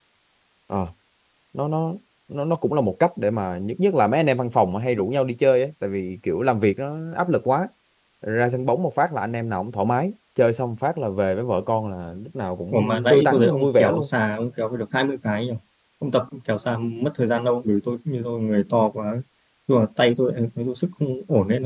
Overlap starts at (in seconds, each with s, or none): 12.7 s